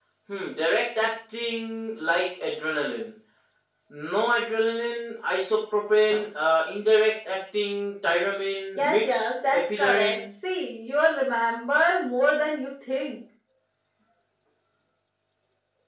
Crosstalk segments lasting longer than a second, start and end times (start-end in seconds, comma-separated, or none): 8.8-10.3